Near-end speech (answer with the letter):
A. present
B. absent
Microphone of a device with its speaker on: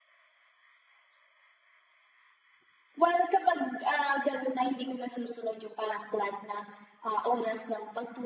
B